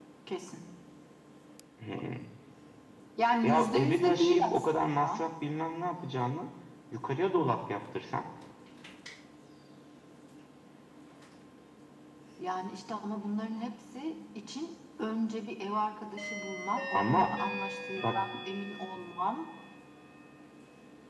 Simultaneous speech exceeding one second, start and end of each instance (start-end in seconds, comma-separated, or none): 3.4-5.3